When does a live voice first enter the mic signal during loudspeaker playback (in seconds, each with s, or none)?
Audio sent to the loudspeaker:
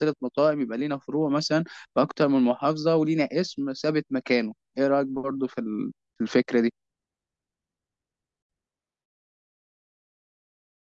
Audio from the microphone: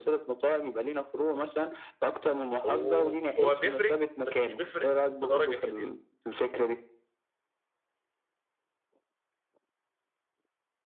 2.6 s